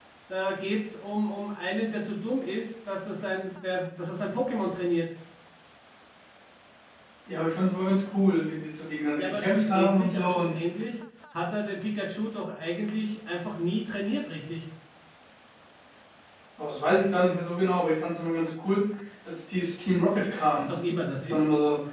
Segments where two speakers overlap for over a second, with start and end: 9.2-10.6

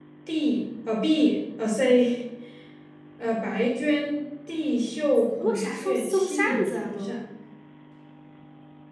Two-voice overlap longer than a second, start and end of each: 5.4-7.2

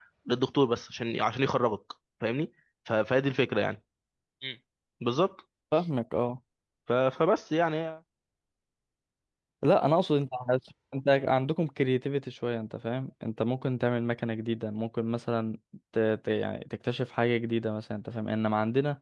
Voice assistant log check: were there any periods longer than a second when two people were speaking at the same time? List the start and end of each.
none

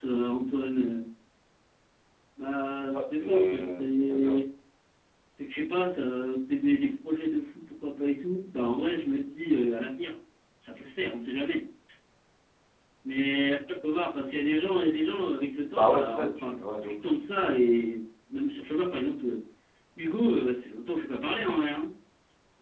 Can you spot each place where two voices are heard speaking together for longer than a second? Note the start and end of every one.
2.9-4.4, 15.8-17.0

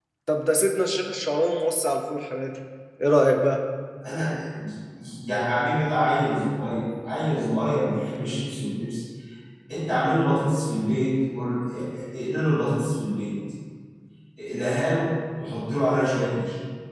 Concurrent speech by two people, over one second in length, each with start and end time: none

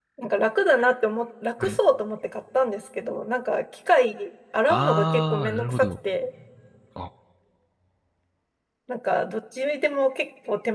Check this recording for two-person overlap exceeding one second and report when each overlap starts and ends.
4.7-5.9

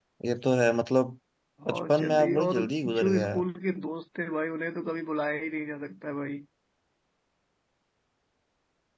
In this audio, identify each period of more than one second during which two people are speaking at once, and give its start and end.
1.7-3.4

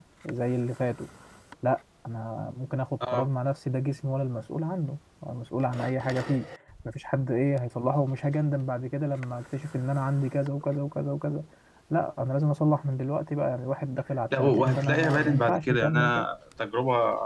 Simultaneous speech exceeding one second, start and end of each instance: 14.3-16.3

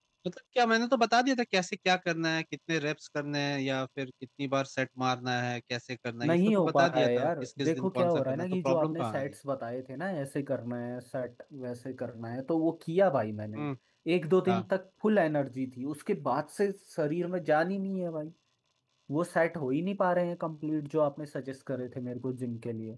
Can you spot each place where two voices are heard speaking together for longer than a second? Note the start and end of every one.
6.2-9.3

